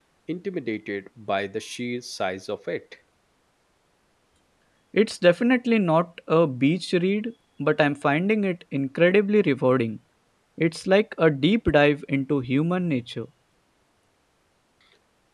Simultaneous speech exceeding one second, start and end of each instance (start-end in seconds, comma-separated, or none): none